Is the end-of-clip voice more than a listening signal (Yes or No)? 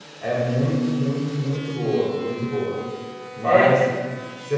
No